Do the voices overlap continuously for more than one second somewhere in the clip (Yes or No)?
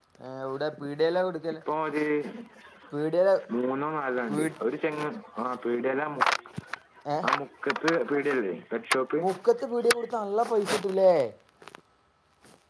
No